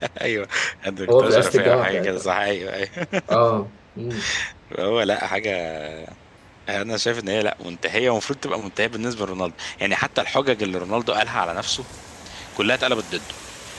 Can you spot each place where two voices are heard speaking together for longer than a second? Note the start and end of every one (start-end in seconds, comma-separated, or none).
1.1-2.3